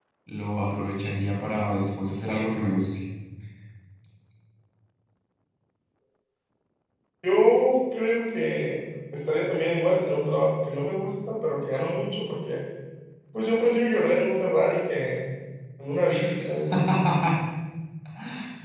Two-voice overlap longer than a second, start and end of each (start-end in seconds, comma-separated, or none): none